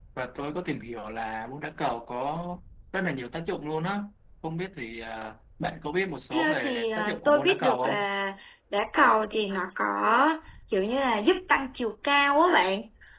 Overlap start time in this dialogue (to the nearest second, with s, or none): 6 s